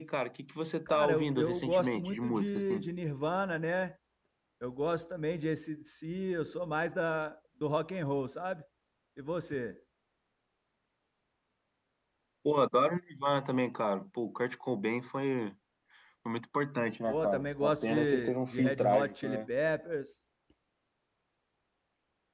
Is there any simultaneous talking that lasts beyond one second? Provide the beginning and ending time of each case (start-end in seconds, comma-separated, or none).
0.9-2.9, 17.1-19.4